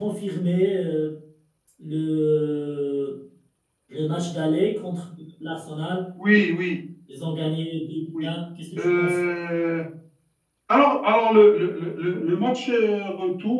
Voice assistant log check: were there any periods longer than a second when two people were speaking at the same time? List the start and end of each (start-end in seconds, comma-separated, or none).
none